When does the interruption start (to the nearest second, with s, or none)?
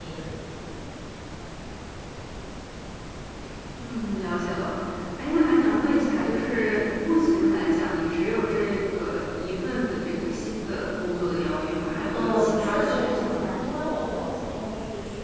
12 s